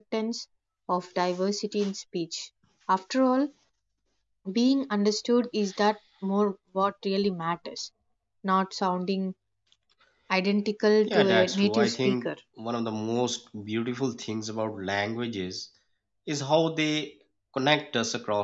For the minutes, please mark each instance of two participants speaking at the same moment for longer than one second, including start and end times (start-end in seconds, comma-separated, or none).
11.1-12.3